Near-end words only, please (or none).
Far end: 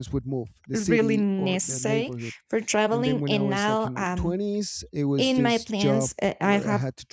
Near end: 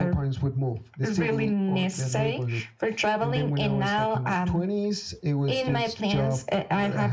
none